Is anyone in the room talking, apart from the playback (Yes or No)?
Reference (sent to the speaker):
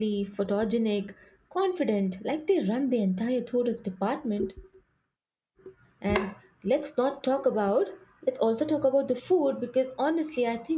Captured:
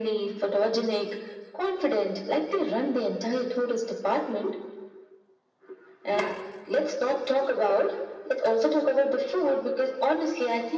No